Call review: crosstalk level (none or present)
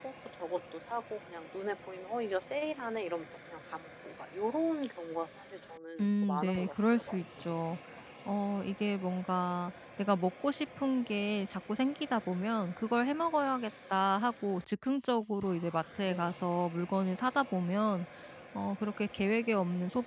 present